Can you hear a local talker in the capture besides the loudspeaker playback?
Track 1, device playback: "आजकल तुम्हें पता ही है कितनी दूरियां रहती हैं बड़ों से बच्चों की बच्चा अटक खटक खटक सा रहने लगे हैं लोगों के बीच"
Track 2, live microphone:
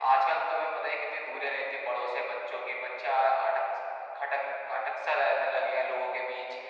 No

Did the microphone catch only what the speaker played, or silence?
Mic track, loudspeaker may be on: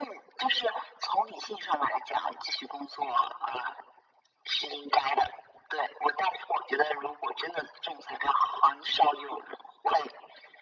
Yes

